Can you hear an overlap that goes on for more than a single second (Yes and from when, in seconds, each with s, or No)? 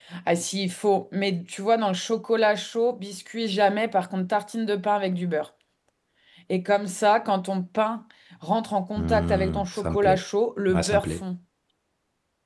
Yes, from 9.0 s